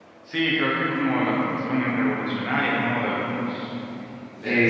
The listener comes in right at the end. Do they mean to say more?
Yes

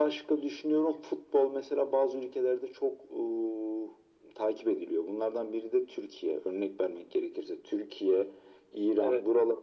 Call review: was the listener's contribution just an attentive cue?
Yes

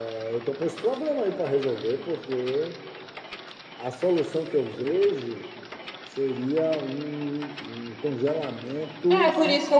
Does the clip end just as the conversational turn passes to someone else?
Yes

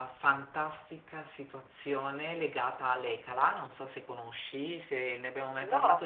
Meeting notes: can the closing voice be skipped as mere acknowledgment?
Yes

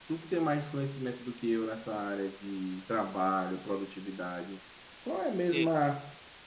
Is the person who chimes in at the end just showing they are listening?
Yes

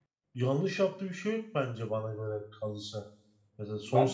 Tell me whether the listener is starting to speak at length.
Yes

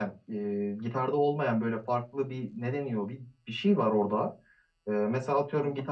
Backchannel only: Yes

